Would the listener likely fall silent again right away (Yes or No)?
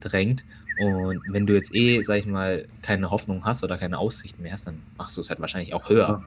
No